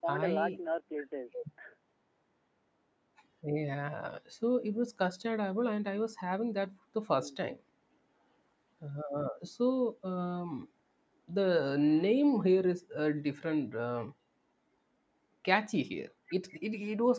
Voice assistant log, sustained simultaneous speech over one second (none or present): none